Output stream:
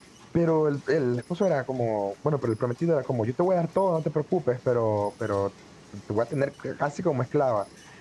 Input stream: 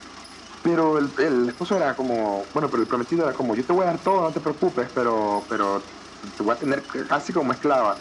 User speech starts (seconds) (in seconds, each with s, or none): none